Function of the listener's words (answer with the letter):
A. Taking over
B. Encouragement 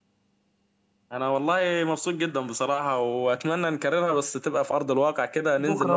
A